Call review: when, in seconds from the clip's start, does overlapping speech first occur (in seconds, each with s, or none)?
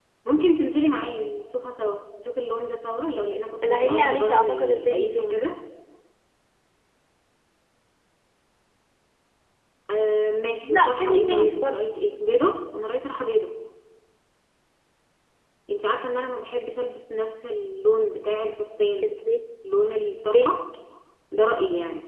3.7 s